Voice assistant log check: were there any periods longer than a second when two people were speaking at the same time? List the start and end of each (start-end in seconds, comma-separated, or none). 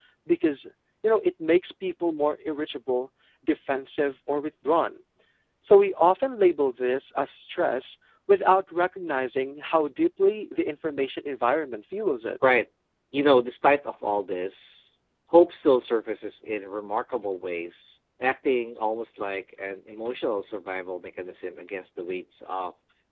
none